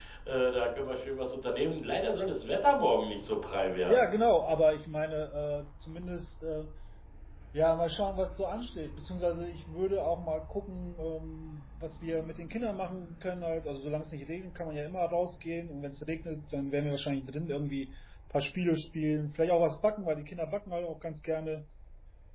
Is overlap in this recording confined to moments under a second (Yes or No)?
Yes